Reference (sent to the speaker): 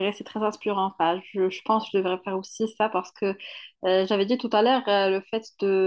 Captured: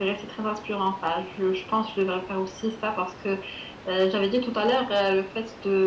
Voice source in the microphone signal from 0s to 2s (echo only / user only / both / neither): echo only